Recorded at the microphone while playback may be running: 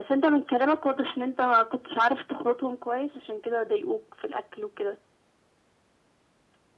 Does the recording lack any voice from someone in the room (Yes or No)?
Yes